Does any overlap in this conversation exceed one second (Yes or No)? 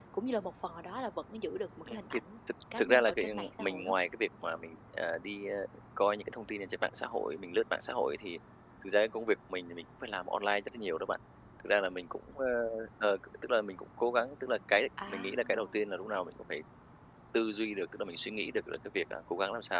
Yes